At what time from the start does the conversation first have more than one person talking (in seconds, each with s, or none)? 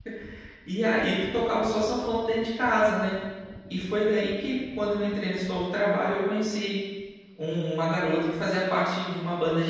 none